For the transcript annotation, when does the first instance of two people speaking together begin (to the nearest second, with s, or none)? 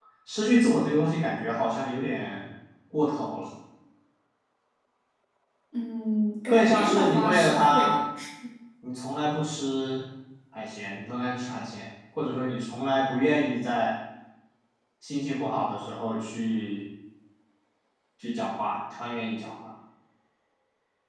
6 s